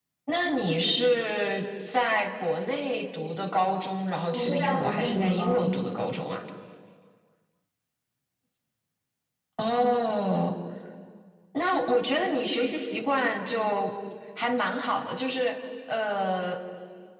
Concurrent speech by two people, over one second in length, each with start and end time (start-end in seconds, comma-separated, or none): 4.3-5.9